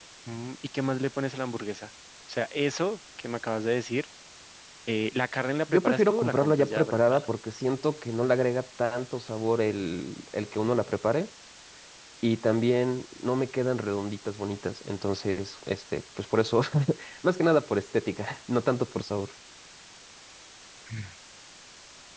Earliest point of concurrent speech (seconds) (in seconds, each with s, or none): 5.7 s